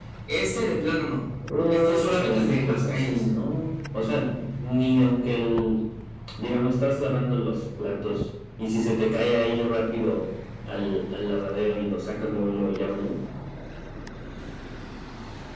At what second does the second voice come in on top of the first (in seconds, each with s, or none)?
1.7 s